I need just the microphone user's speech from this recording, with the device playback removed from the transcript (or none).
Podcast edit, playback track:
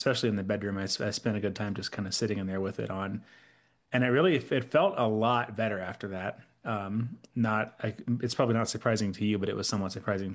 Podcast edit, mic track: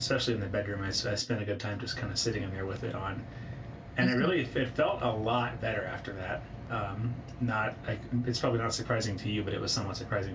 hmm